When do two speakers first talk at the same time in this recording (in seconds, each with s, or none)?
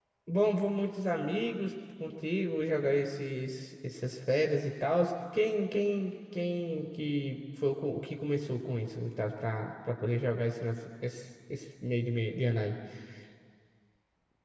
none